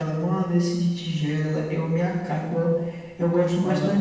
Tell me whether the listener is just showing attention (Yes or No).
Yes